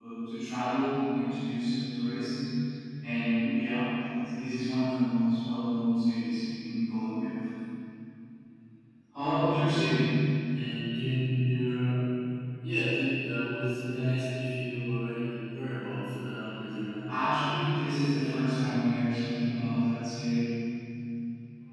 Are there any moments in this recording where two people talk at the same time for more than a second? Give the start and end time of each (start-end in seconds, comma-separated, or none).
none